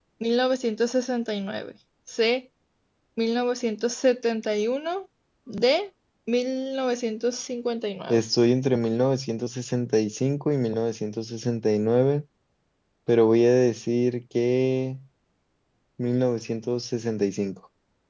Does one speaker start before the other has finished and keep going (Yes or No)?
No